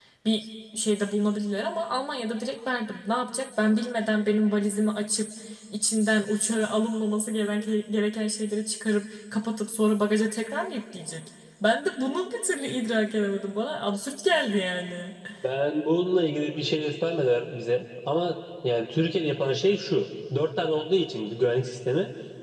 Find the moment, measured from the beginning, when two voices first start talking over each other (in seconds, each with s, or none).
none